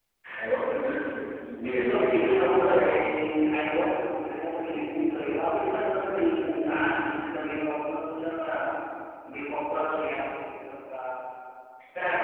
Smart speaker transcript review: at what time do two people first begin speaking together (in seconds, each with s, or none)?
1.5 s